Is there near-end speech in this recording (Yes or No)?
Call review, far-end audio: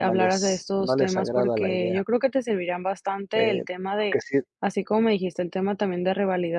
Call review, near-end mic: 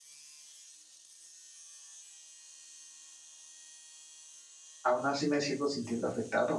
Yes